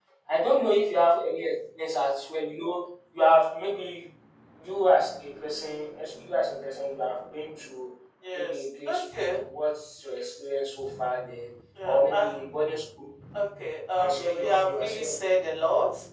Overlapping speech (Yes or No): Yes